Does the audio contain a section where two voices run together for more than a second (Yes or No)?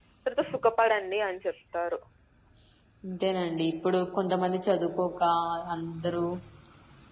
No